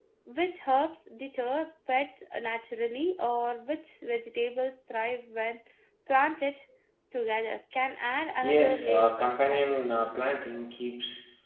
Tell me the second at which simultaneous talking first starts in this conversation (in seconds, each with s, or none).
8.4 s